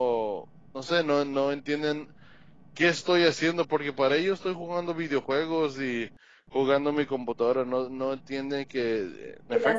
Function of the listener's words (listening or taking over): listening